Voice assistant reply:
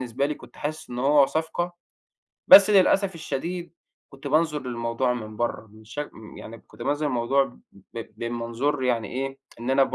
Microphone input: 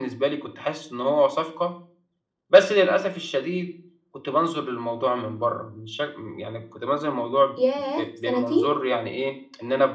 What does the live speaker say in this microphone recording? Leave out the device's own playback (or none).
ياه! سنتين!